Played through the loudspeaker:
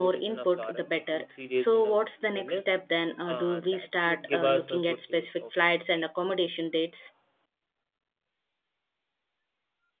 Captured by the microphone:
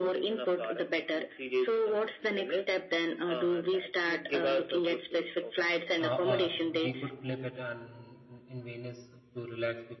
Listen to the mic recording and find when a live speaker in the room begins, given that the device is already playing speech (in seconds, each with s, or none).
6.0 s